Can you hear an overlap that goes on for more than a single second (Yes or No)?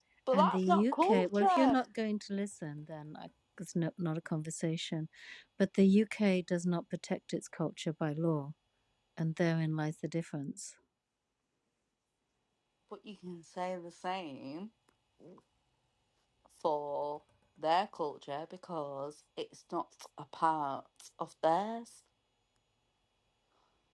Yes